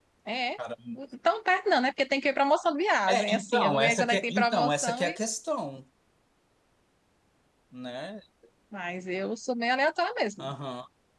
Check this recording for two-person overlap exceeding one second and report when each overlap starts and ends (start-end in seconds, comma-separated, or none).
3.1-5.1